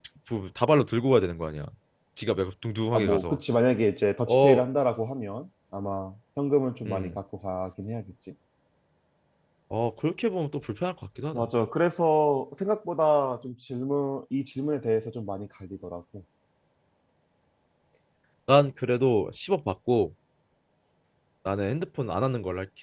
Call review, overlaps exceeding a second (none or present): none